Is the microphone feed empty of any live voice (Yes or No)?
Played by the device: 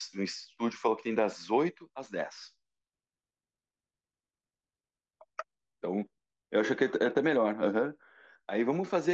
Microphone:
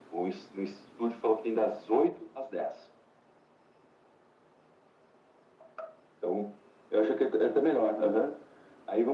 Yes